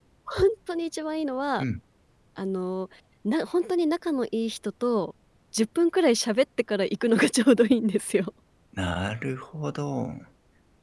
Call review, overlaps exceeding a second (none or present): none